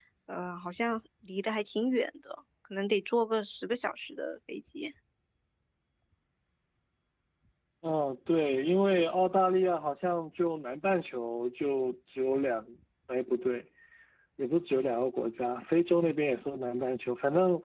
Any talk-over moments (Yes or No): No